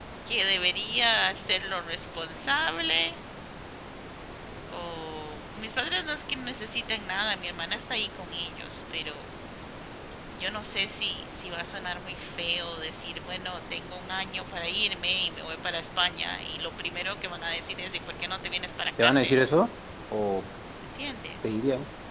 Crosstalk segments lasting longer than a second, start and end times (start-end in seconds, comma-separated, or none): none